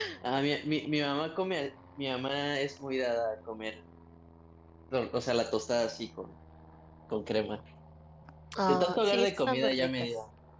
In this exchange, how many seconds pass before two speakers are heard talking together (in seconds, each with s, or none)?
8.7 s